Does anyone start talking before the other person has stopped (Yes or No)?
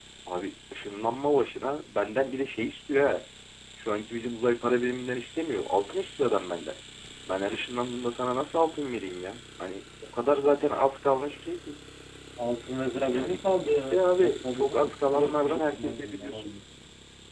Yes